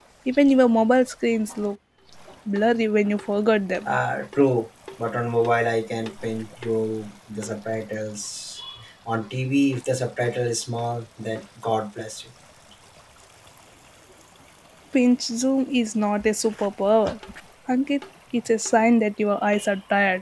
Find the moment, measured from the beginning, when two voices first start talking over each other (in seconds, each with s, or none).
none